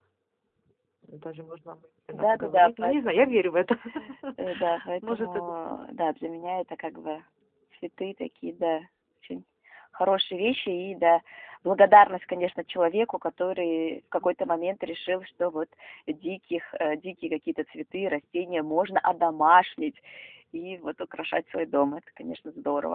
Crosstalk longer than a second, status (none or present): present